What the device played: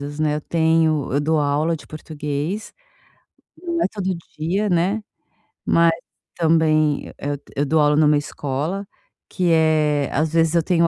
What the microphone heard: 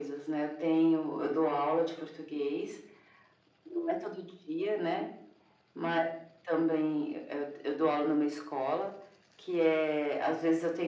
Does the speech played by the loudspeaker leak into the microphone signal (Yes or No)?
Yes